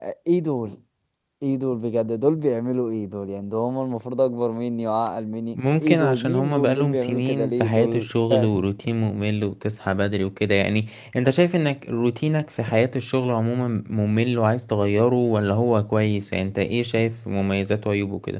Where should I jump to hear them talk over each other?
6 s

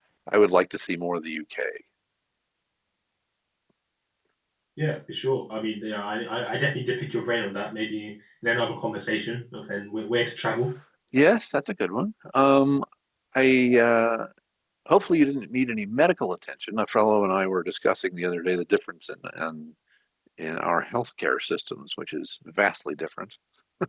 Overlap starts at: none

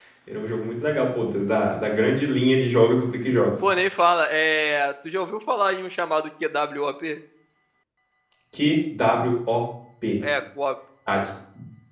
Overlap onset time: none

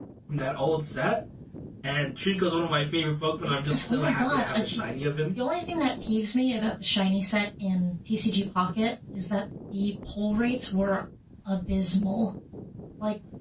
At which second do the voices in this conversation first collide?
3 s

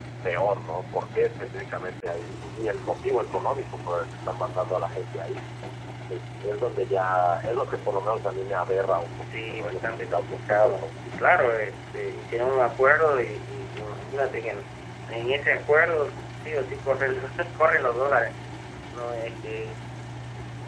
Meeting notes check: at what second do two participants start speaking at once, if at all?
9 s

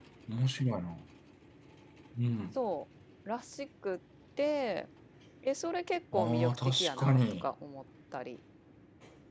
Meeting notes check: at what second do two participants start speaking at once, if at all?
6 s

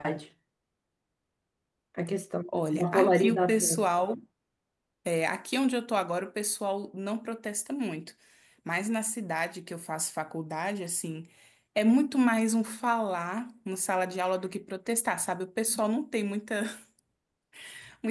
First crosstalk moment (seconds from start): 2 s

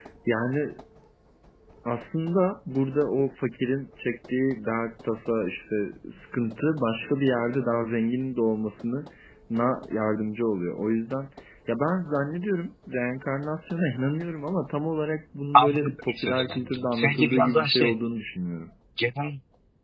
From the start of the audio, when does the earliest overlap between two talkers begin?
16 s

